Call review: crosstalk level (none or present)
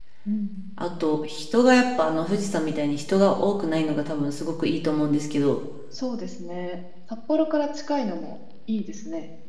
none